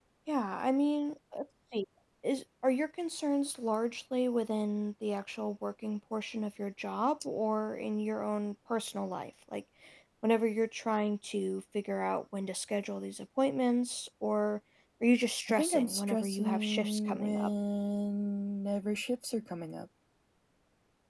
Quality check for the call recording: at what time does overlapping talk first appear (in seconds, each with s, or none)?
15.5 s